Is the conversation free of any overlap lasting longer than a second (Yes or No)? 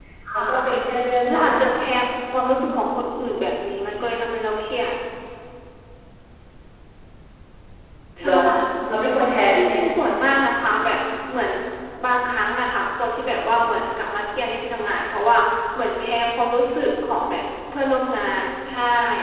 Yes